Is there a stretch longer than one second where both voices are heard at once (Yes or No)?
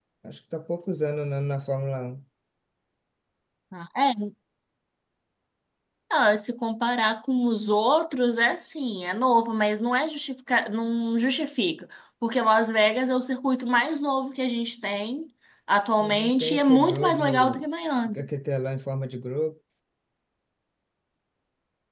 Yes